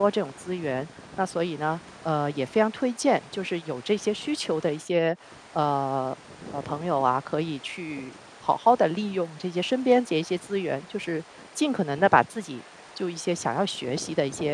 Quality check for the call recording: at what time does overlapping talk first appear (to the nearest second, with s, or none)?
none